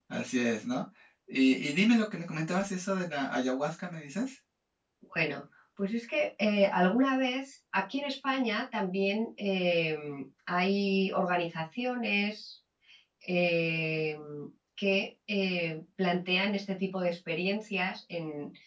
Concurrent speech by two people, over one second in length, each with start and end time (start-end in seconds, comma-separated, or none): none